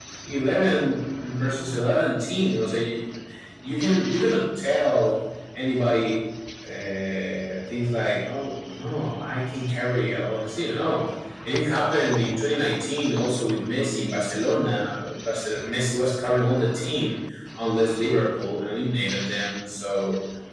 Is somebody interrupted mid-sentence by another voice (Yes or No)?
No